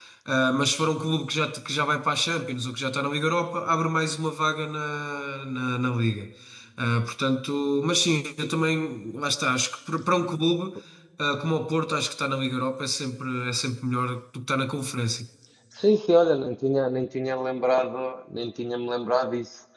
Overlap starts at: none

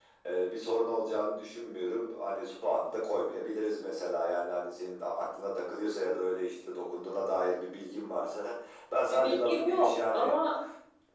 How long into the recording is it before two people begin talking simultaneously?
9.1 s

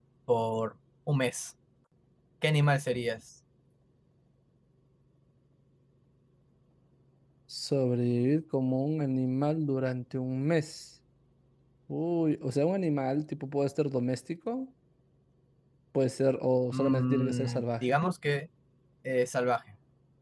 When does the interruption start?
16.7 s

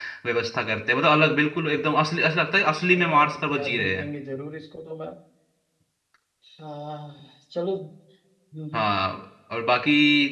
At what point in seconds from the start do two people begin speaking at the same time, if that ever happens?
2.7 s

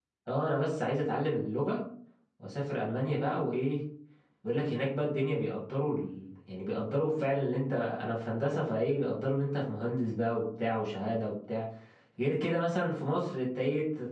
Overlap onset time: none

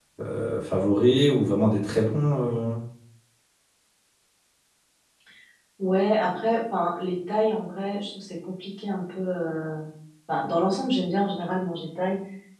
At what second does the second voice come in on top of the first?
none

